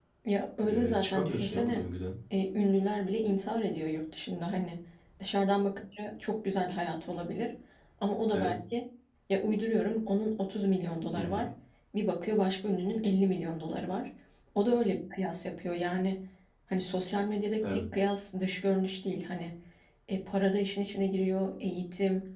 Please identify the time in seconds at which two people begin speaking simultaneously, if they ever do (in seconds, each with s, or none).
0.6 s